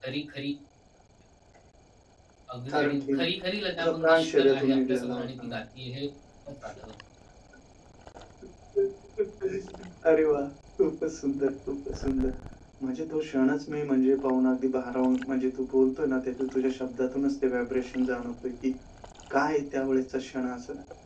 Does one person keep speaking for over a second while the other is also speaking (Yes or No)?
Yes